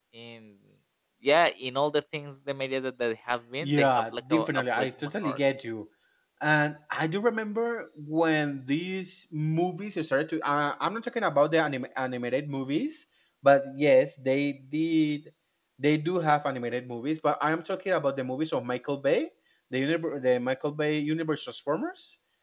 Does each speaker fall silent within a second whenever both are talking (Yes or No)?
No